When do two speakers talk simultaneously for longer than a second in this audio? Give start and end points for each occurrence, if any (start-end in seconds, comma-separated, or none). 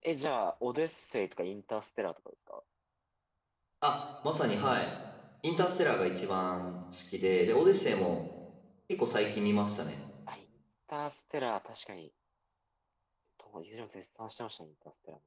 none